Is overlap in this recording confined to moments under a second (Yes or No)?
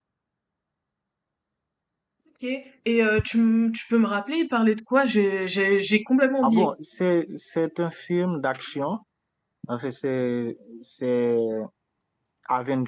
Yes